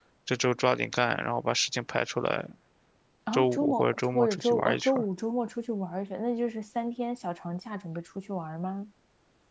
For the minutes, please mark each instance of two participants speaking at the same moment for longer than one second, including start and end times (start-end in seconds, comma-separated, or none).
3.3-5.0